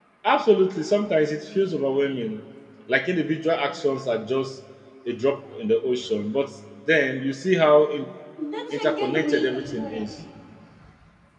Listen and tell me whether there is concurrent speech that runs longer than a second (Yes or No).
Yes